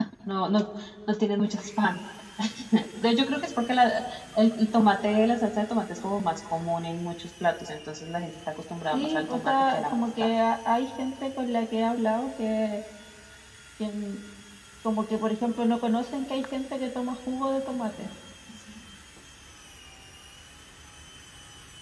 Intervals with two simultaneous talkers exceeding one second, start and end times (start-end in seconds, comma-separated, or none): 8.9-10.3